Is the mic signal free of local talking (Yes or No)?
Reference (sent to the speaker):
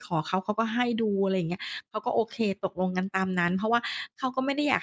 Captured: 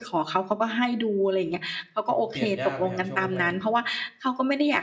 No